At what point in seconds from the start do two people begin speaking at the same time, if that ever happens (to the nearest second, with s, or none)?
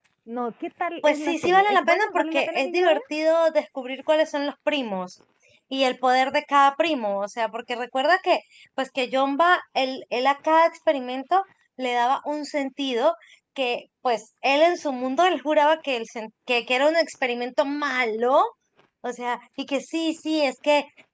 1 s